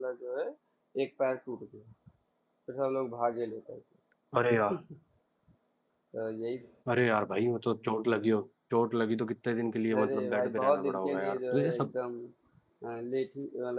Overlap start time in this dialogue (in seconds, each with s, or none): 9.9 s